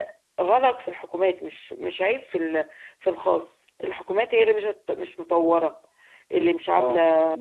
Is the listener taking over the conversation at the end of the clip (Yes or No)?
Yes